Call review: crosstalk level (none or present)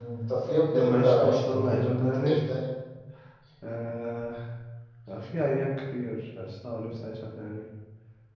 present